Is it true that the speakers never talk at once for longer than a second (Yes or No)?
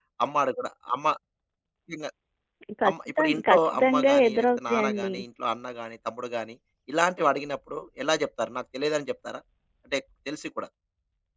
No